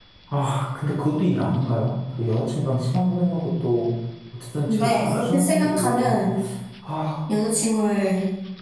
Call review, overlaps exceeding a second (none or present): present